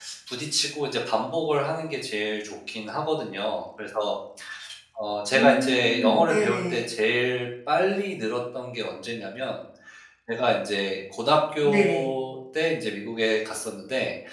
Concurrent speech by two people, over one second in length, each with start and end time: 5.3-6.8

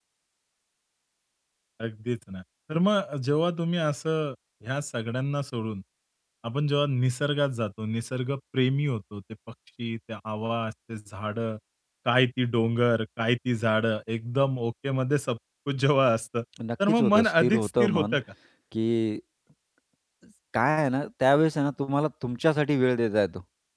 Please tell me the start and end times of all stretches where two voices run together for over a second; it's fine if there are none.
16.9-18.2

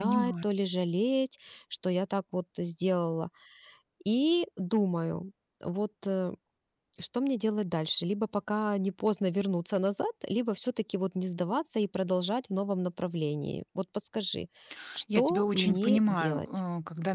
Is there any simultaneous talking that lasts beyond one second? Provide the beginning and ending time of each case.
15.2-16.4

